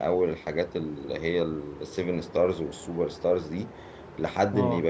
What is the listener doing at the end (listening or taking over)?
listening